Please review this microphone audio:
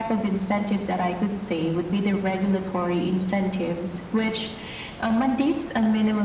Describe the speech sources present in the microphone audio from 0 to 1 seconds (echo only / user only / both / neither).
echo only